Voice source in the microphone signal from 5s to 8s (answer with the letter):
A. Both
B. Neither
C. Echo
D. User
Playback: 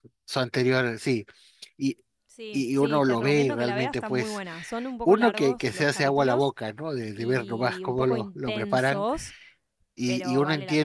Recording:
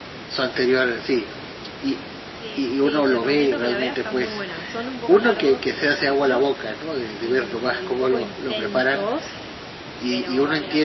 C